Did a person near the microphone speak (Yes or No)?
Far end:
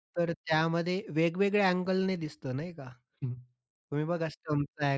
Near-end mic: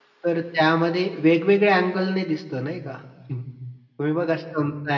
No